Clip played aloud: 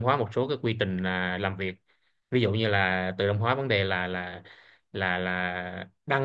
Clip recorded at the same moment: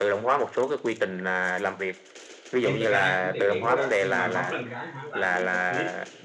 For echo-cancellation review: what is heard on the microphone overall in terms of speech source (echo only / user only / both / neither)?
both